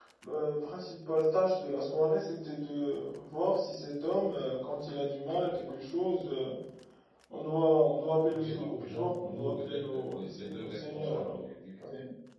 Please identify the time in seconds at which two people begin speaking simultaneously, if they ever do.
8.3 s

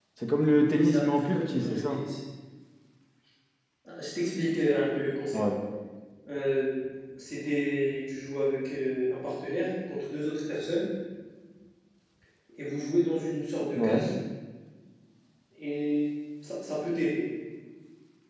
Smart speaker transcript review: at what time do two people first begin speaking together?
0.7 s

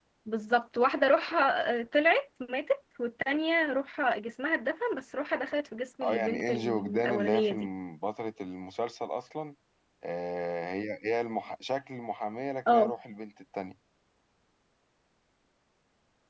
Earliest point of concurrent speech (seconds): 6.0 s

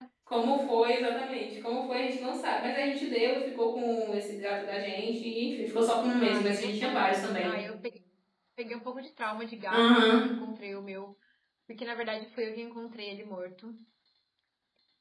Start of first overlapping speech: 6.2 s

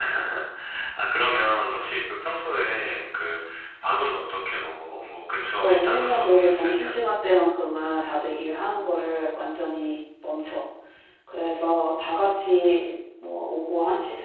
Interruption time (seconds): 5.6 s

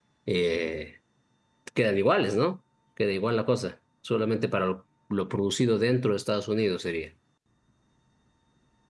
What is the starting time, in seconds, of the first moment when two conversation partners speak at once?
none

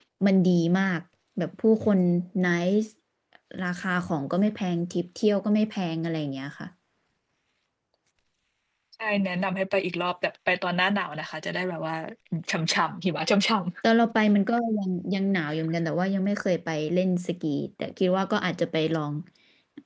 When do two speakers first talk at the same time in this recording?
none

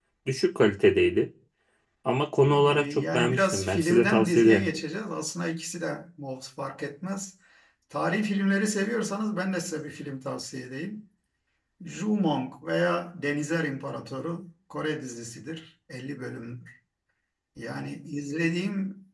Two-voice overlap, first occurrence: 2.7 s

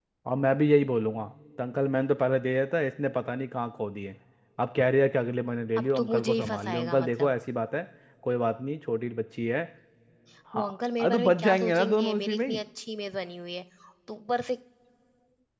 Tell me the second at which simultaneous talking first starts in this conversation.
5.8 s

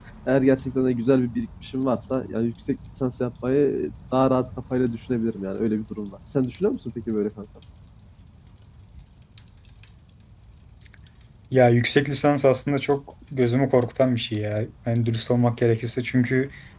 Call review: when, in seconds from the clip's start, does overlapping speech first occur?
none

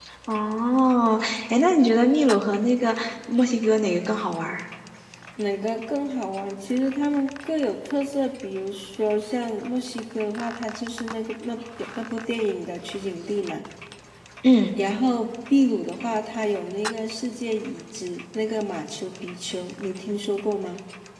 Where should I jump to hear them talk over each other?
none

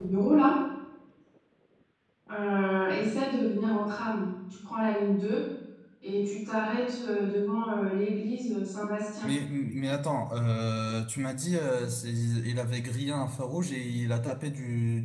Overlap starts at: none

